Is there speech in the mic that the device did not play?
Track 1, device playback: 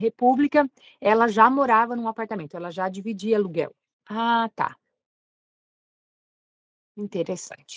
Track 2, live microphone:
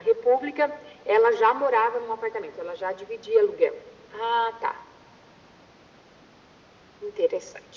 No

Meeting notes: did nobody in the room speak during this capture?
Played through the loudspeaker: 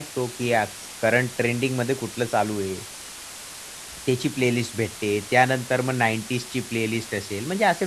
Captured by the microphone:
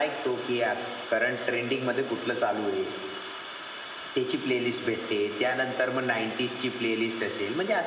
Yes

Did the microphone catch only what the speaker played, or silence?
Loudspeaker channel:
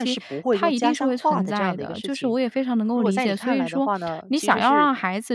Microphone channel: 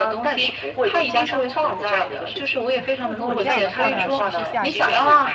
No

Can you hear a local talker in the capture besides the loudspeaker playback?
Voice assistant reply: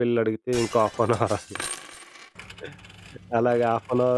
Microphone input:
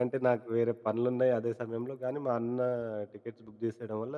Yes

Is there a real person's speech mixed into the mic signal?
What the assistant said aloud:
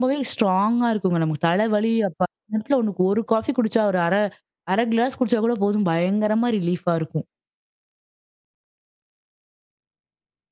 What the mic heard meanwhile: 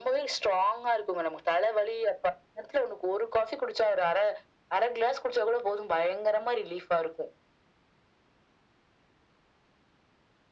No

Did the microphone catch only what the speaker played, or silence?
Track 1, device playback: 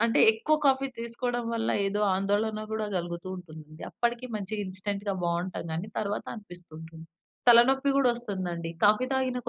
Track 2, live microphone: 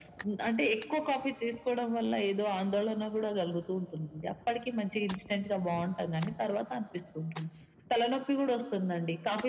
Yes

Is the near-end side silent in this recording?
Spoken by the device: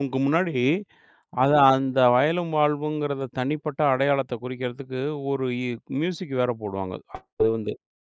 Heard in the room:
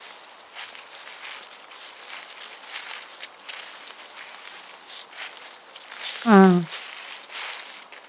No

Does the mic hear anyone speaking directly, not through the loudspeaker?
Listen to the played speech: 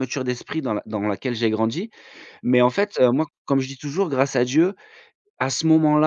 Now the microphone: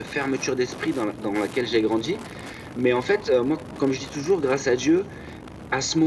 No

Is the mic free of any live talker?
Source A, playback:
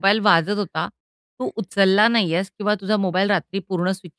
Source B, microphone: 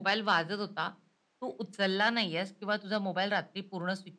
Yes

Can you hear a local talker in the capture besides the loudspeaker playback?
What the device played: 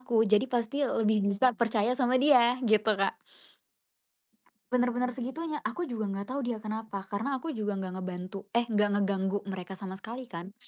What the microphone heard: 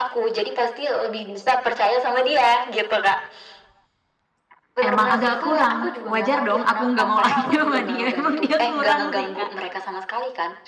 Yes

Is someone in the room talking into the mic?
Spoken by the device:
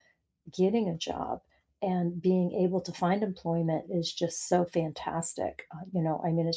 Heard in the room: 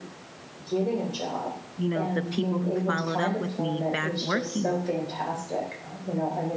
Yes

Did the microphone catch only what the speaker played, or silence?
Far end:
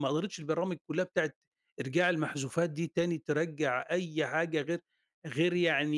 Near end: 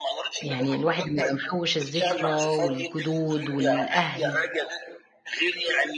No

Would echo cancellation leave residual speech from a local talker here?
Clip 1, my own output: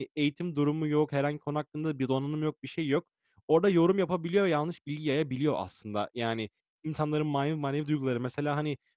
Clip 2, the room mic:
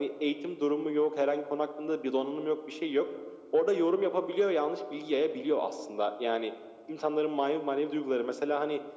No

